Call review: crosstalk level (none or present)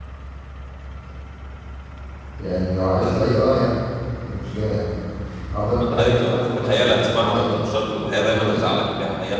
present